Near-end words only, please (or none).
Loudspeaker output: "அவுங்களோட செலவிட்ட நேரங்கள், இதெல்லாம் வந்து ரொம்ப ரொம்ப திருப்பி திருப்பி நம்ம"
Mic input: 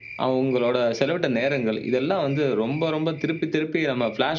none